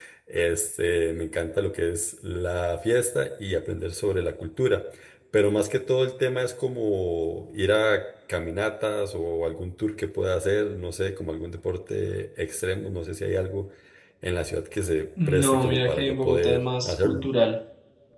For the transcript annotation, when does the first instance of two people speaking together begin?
15.2 s

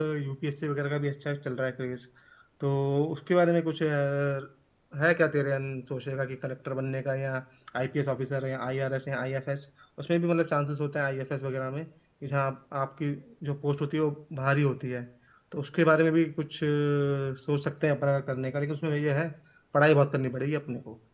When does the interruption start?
none

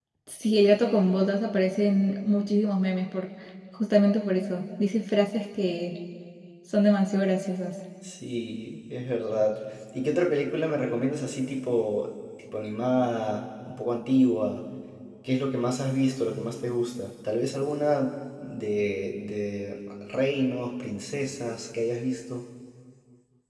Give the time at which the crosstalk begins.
none

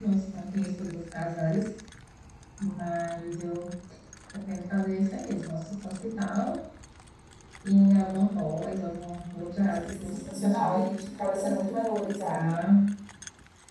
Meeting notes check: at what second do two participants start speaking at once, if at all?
9.6 s

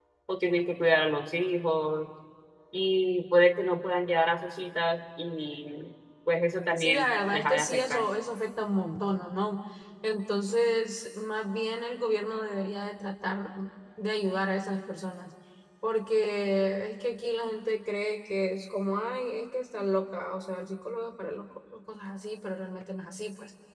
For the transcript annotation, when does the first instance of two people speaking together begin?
6.8 s

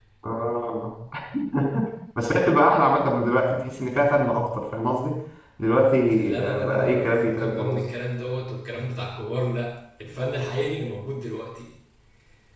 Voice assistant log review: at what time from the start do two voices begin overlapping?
6.4 s

